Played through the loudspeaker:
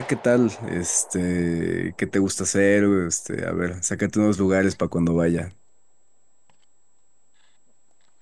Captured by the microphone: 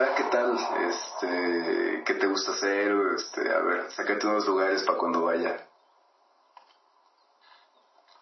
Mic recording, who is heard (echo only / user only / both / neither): echo only